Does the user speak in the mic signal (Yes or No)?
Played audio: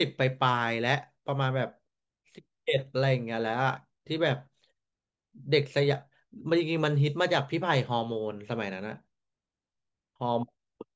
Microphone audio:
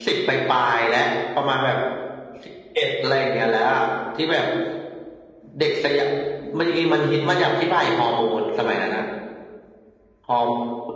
No